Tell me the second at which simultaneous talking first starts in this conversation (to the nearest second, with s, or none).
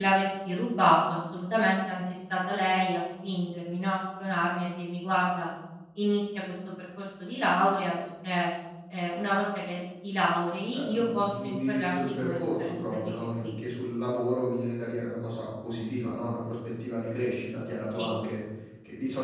11 s